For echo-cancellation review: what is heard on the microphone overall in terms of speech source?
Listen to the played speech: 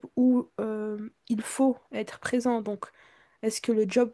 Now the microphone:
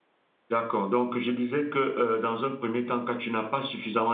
user only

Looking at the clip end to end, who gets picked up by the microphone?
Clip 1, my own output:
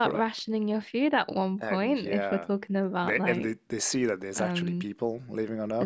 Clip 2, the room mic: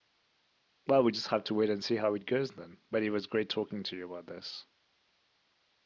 user only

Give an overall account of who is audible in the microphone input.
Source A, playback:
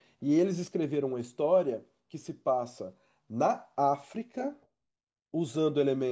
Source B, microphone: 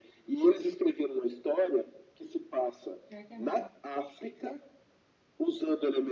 both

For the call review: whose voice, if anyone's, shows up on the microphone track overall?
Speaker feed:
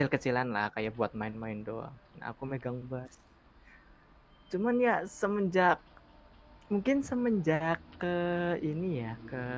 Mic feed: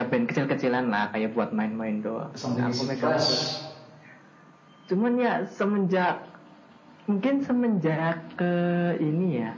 both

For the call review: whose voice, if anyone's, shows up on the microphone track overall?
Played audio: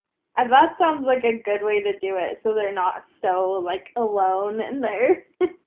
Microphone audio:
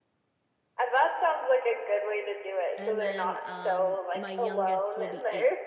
both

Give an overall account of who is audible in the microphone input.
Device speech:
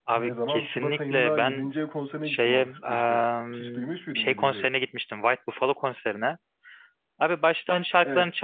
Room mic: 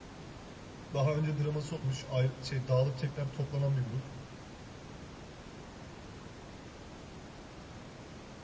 user only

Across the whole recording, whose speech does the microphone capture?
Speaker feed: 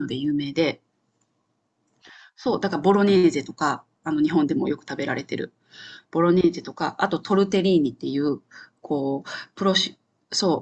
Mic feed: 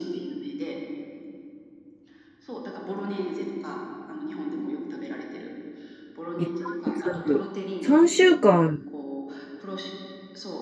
both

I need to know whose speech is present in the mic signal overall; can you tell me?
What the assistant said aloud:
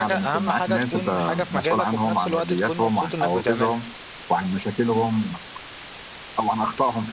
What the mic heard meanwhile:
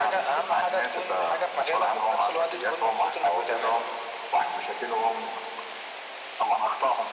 echo only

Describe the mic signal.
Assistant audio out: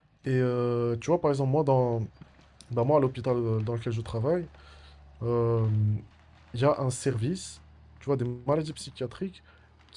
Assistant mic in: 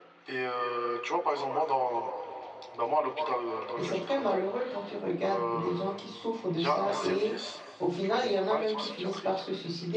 both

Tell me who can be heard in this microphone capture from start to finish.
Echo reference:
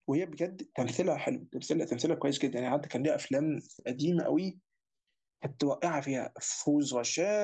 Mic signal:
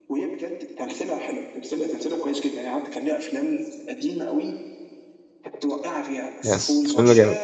both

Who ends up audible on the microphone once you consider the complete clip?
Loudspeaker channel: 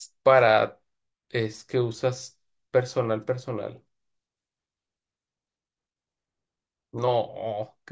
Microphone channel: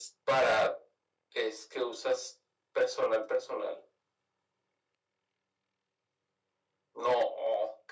echo only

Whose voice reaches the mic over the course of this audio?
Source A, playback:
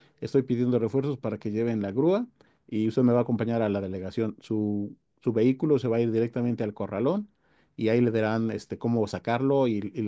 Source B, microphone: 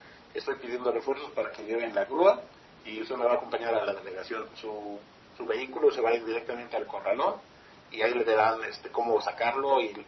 echo only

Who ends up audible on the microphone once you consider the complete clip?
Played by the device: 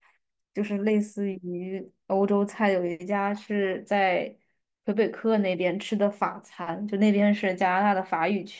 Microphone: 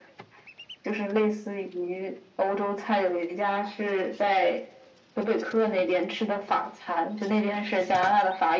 echo only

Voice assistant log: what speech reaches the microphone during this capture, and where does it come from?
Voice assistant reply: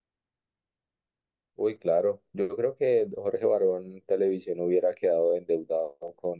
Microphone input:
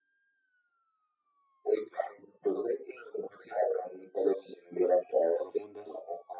both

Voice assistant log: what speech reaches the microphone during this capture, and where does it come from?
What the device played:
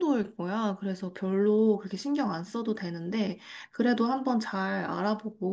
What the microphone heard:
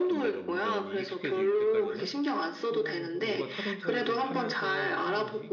both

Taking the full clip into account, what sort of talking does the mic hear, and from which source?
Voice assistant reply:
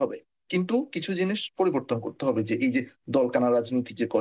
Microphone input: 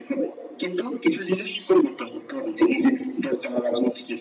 echo only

